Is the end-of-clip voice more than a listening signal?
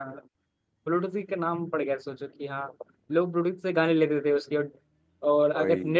No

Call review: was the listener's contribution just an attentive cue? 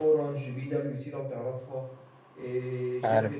Yes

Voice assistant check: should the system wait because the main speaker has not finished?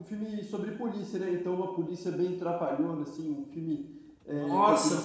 Yes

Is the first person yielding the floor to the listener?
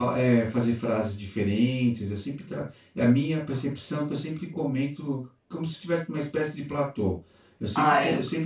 No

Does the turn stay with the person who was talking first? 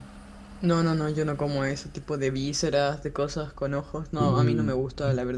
Yes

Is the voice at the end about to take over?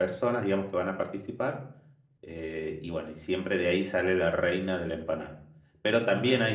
No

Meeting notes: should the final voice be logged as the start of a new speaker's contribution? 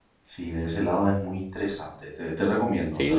Yes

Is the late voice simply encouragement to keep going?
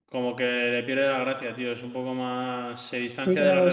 No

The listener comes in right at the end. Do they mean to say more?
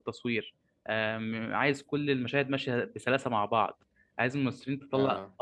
No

